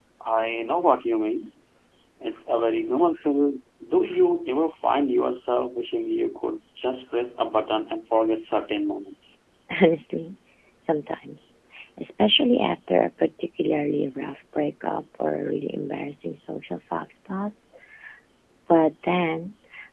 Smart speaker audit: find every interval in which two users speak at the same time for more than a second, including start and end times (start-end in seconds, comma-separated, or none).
none